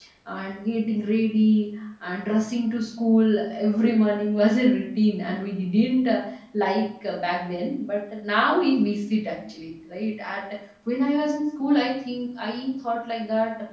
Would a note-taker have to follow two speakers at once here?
No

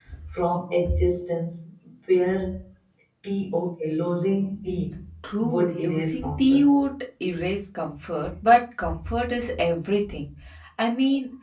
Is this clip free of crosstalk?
No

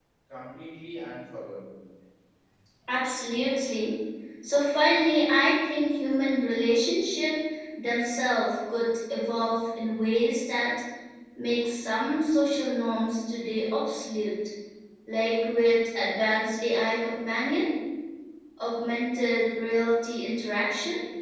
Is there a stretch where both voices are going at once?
No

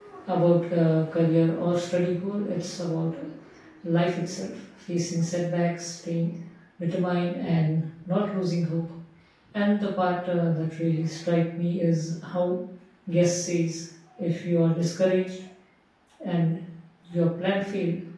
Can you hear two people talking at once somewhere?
No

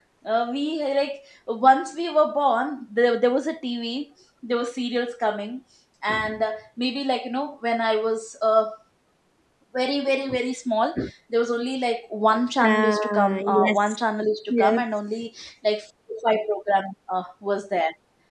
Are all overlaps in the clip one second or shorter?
No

